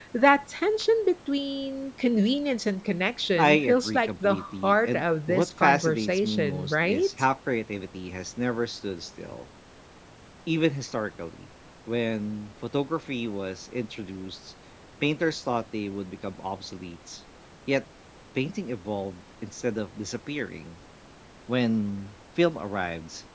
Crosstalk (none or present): present